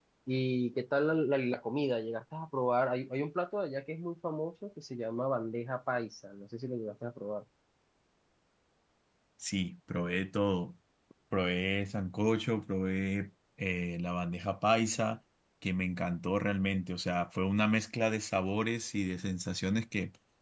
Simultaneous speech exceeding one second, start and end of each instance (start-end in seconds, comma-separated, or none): none